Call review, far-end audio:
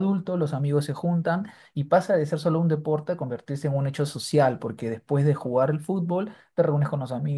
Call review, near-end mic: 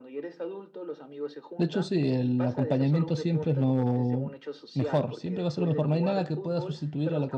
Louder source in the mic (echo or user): user